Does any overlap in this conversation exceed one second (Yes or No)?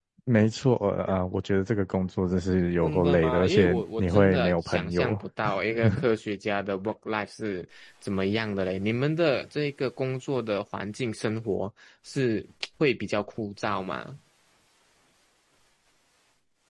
Yes